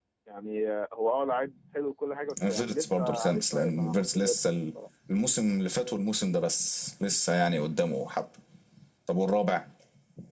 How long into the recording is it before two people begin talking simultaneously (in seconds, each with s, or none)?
2.3 s